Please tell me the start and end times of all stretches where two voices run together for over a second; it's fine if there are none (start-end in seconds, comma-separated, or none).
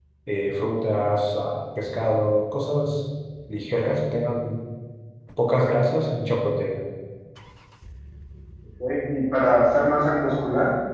none